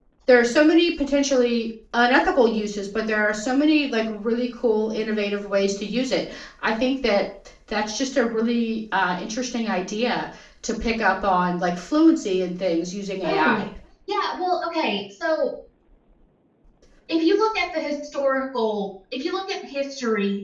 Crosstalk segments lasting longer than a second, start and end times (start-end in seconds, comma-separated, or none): none